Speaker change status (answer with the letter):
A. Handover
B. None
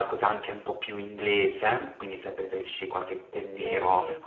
B